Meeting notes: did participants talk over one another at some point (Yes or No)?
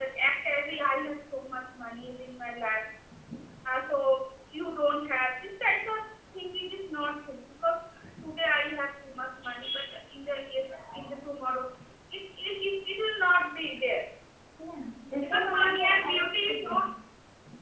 Yes